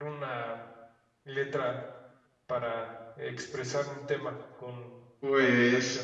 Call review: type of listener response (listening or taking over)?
taking over